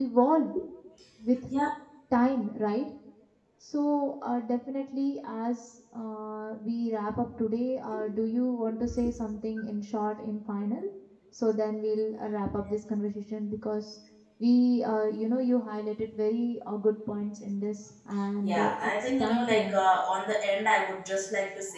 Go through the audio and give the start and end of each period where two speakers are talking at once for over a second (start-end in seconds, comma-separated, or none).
18.4-19.8